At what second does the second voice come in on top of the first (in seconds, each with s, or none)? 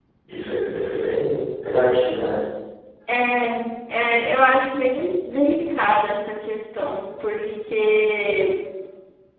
none